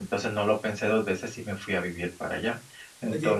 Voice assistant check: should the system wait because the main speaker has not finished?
No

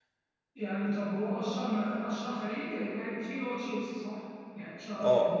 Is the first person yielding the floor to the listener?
Yes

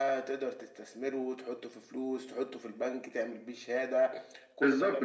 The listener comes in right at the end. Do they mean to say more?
Yes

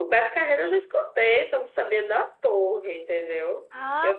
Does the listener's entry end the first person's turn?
Yes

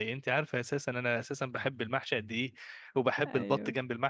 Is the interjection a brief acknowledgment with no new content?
Yes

